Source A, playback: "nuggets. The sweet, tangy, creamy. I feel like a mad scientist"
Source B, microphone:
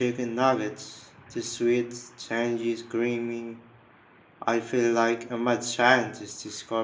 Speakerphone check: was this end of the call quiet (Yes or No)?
Yes